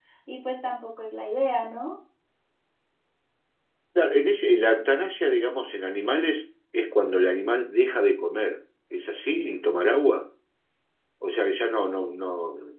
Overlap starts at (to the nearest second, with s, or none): none